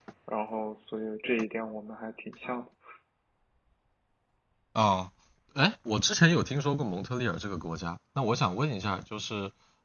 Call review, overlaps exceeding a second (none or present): none